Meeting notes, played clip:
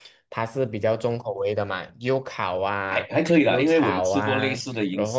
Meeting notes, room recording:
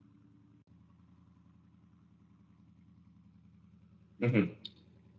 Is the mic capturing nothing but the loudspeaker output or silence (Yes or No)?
No